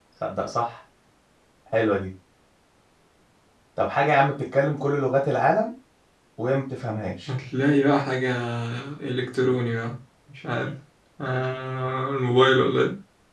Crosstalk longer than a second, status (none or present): none